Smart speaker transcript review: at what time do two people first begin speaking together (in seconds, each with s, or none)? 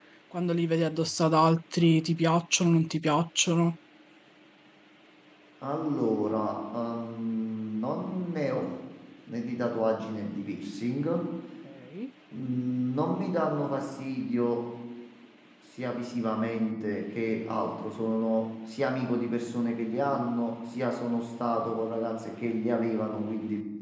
none